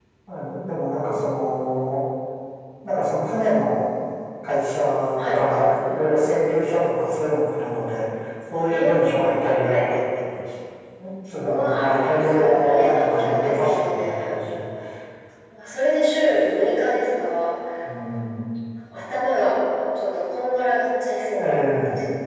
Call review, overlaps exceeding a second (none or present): present